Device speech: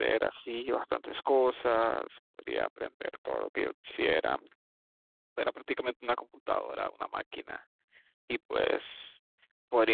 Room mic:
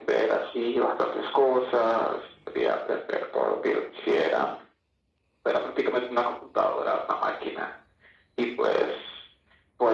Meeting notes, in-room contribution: none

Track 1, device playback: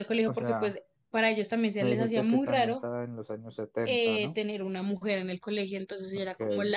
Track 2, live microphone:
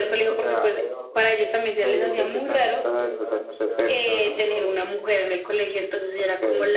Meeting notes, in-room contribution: present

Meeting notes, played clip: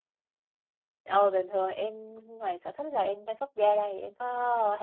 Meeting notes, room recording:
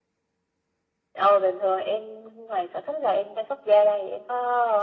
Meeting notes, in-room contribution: none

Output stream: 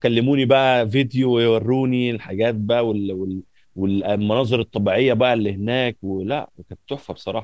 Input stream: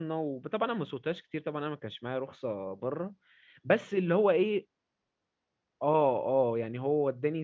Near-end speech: present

